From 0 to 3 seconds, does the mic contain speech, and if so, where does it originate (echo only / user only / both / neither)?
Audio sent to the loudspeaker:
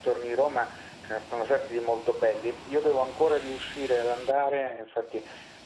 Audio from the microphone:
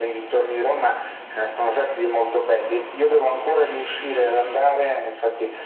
echo only